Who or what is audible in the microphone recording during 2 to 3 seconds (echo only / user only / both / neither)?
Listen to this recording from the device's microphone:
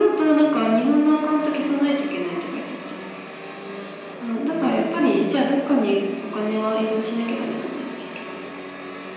echo only